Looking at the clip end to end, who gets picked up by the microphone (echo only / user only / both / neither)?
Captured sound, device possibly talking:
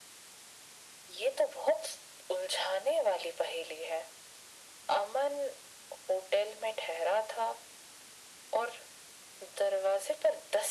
echo only